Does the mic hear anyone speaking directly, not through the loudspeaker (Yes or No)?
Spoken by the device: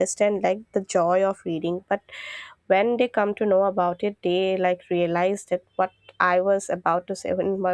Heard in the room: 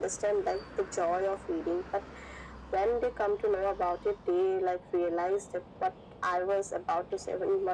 No